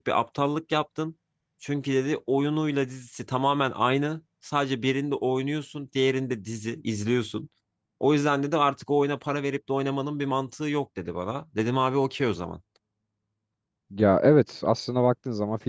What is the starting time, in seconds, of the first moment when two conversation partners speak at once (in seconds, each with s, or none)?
none